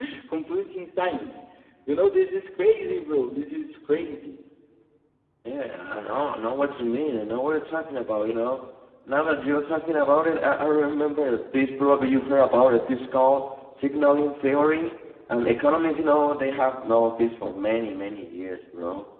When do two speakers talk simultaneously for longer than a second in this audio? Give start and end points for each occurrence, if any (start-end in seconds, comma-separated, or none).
none